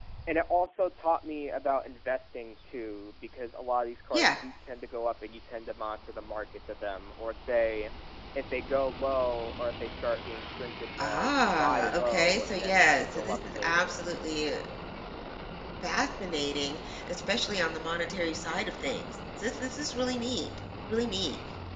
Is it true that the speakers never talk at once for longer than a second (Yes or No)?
No